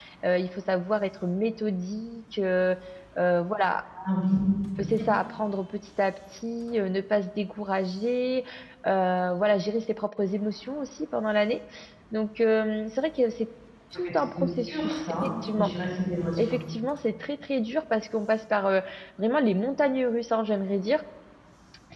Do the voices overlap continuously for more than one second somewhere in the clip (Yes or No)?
Yes